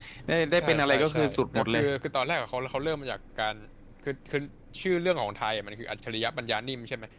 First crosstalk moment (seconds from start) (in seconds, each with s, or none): 0.6 s